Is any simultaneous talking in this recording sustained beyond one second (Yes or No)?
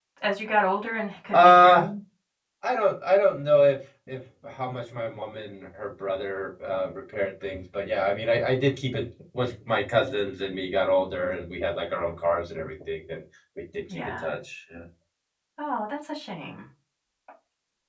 No